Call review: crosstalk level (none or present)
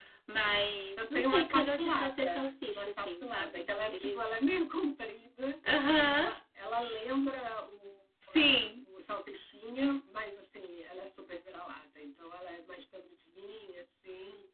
present